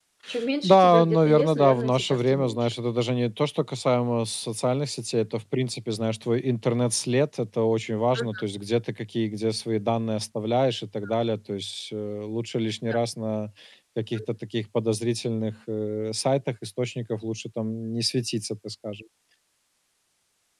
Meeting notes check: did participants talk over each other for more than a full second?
Yes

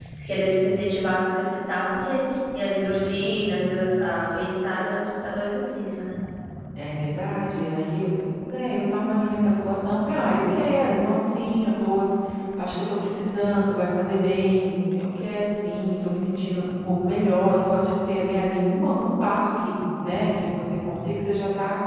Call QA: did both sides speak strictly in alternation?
Yes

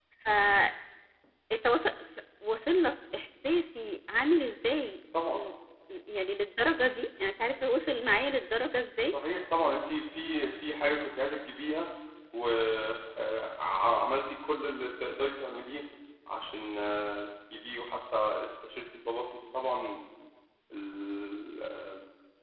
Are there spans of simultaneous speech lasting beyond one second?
No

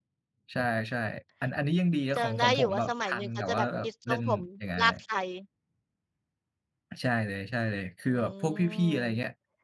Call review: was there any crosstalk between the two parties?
Yes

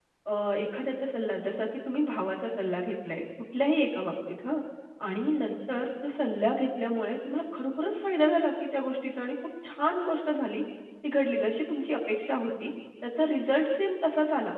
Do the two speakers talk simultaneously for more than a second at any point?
No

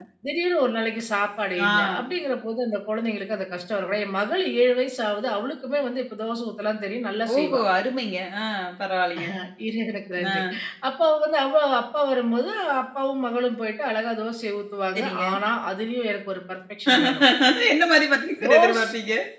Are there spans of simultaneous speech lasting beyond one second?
No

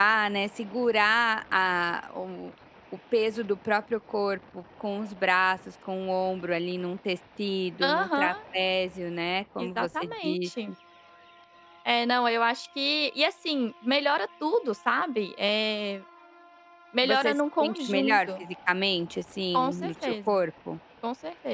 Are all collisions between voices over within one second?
No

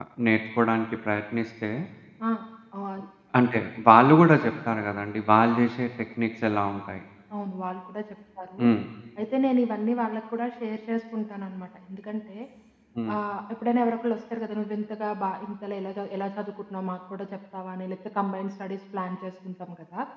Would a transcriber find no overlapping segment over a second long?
Yes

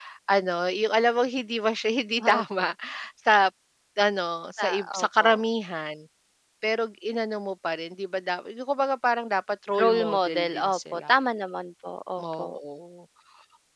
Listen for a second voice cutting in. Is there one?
Yes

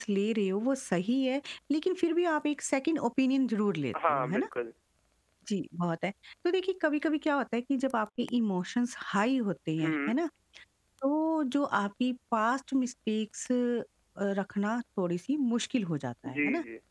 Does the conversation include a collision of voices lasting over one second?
No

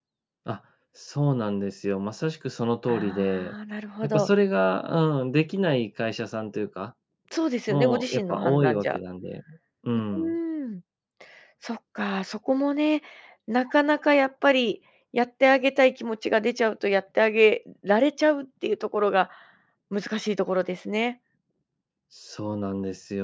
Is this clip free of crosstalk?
No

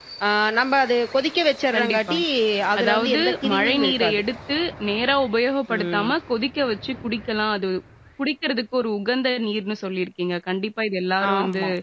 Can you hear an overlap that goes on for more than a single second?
Yes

